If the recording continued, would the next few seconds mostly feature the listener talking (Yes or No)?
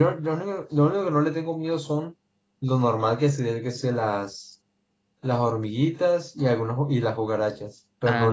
Yes